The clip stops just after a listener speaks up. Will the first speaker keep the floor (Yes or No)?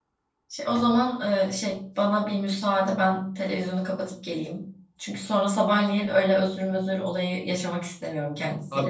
No